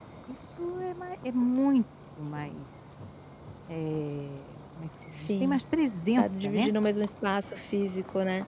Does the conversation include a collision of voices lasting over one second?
No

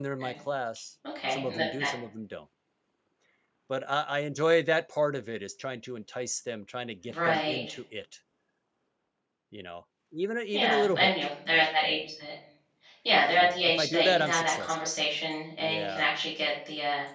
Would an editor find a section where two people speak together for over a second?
Yes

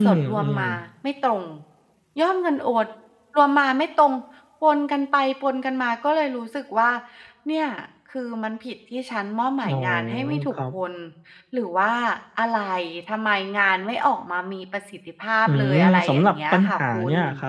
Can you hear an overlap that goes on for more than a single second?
Yes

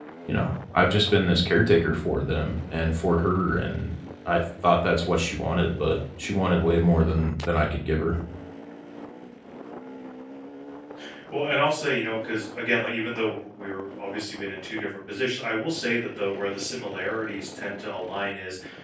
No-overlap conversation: Yes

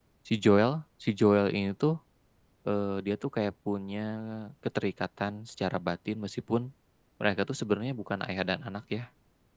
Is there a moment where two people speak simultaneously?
No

